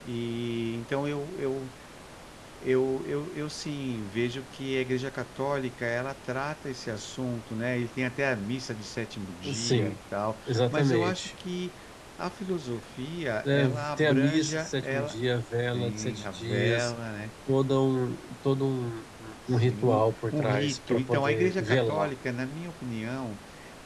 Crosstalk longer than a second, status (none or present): present